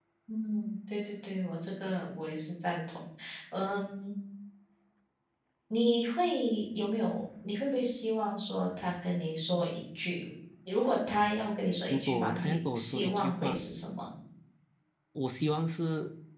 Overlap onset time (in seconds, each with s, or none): 11.9 s